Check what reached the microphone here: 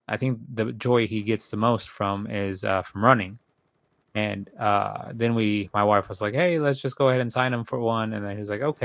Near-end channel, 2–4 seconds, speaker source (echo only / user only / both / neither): user only